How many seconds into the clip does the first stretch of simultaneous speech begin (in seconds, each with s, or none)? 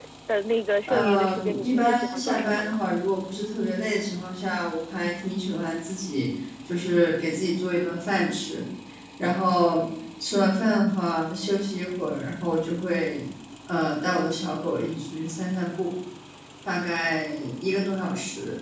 0.9 s